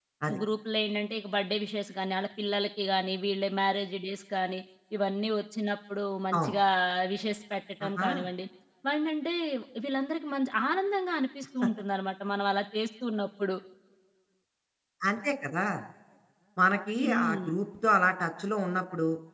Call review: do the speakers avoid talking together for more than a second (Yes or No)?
Yes